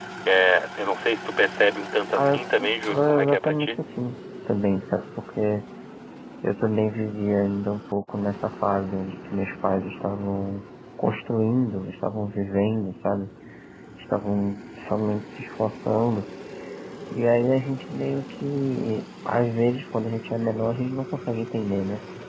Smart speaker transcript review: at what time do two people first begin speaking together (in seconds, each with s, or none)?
2.1 s